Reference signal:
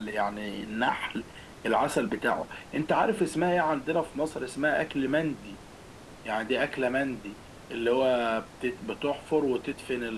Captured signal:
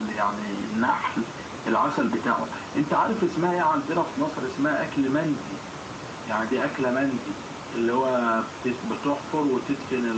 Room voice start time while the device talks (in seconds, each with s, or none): none